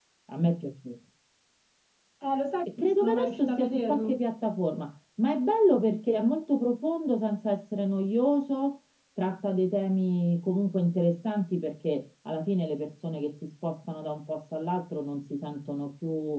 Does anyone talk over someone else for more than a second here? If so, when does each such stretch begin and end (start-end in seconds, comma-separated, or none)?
2.8-4.2